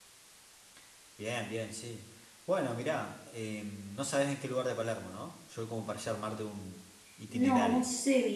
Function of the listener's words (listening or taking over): taking over